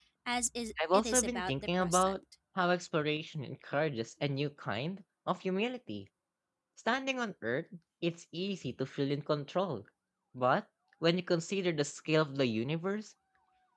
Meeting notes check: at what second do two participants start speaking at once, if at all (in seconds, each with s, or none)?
0.9 s